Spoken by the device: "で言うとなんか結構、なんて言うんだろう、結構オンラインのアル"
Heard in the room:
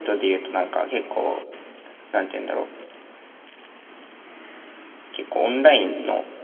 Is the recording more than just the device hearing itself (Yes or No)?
No